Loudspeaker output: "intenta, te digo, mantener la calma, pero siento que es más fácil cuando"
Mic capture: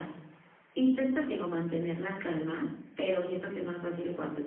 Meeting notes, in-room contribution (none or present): none